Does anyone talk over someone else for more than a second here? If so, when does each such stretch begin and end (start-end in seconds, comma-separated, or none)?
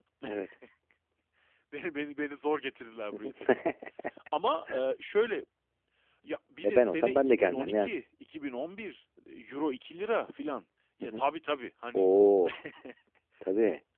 6.6-7.9